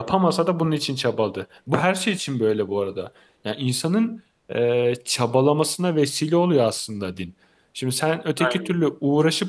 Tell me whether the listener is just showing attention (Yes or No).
Yes